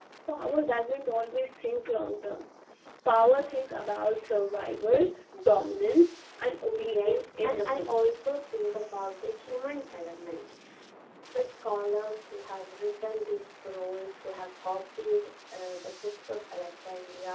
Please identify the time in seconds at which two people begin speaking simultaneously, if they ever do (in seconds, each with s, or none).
6.7 s